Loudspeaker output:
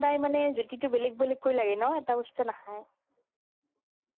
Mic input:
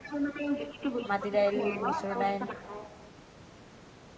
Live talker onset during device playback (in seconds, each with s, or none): 1.1 s